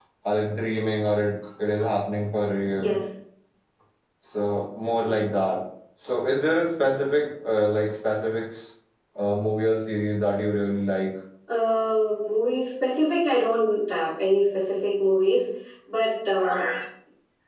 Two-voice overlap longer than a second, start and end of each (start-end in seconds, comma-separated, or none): none